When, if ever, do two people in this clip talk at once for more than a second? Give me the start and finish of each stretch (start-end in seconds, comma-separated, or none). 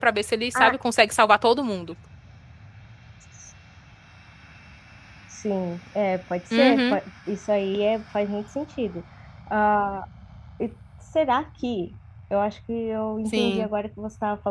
none